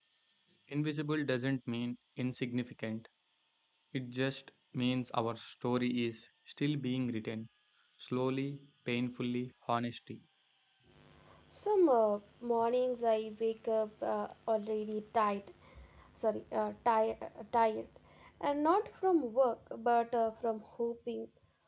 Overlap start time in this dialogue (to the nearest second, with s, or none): none